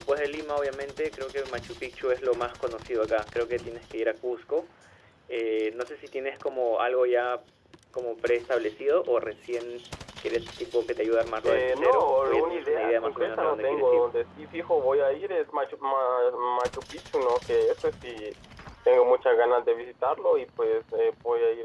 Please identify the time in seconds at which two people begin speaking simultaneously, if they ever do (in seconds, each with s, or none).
11.4 s